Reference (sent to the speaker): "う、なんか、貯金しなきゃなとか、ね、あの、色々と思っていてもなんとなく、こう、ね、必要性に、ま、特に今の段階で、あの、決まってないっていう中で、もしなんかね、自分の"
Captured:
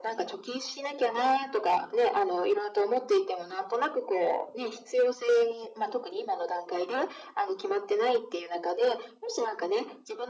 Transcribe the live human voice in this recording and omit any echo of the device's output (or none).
none